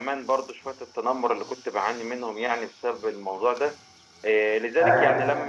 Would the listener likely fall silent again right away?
Yes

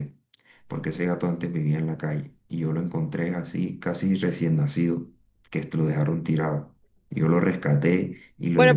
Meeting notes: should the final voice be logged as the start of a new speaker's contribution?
Yes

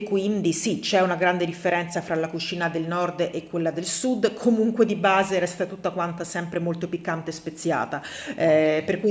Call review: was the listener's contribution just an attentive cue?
Yes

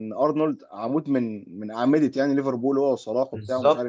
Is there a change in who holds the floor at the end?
No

